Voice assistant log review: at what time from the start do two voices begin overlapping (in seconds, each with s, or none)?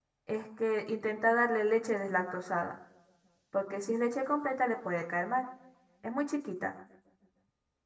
none